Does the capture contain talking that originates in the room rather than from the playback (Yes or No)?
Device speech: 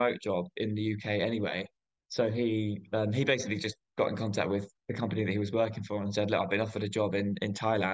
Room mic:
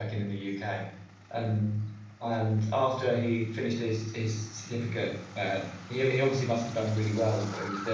Yes